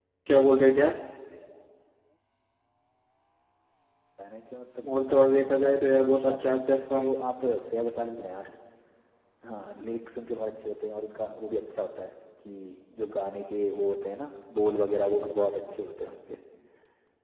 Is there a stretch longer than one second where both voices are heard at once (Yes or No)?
Yes